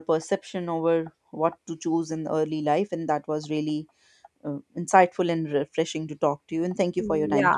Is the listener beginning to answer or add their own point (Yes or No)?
Yes